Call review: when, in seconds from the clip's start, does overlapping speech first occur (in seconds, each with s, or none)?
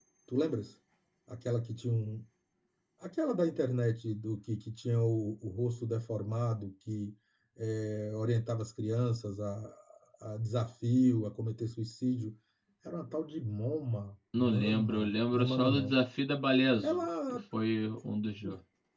14.4 s